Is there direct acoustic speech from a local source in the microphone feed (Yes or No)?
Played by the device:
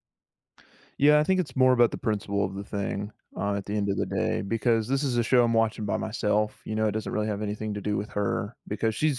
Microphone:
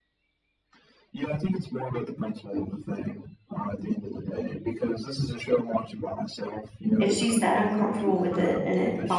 Yes